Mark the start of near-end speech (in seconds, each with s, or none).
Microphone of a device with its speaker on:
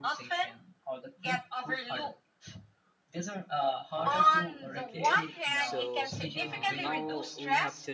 4.0 s